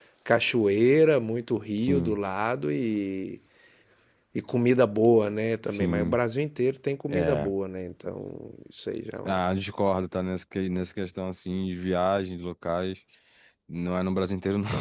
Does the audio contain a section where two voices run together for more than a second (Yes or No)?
No